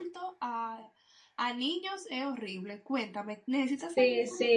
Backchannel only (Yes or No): No